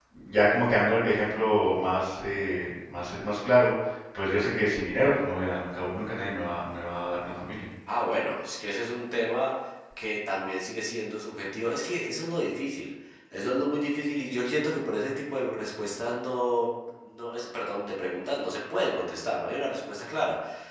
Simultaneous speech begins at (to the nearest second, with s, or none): none